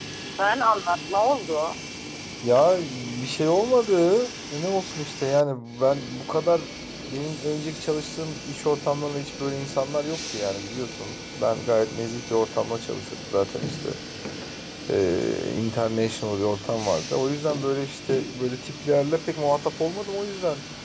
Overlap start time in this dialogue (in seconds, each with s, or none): none